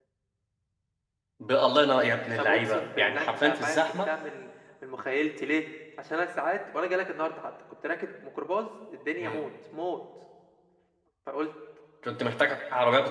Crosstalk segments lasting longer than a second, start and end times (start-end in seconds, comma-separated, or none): 2.4-4.1